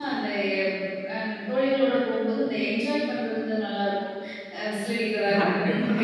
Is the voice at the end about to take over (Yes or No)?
No